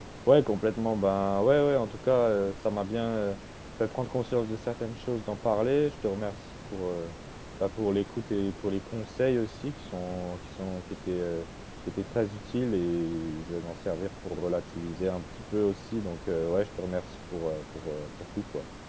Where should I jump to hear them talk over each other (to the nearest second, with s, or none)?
none